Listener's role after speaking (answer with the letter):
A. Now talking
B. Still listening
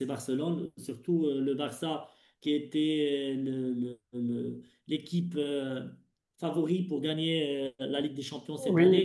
A